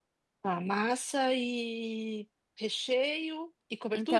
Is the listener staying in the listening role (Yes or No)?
No